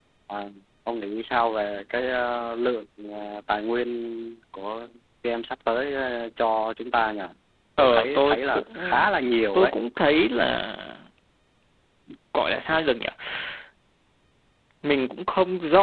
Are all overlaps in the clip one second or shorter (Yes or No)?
No